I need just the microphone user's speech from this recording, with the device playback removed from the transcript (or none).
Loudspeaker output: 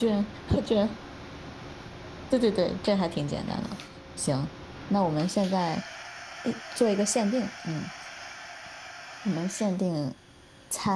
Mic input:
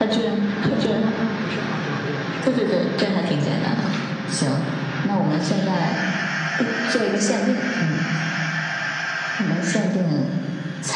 那那那不是韩国，也不是日本，